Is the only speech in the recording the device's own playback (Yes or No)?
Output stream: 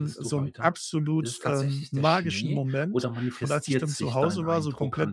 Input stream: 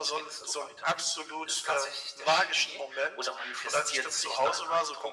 Yes